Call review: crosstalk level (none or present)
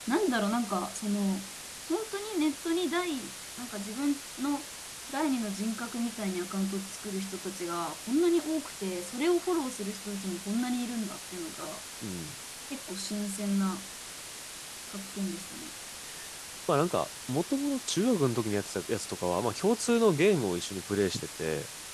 none